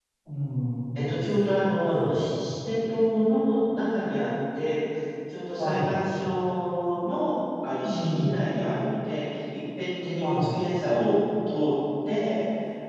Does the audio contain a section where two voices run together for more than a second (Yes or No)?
No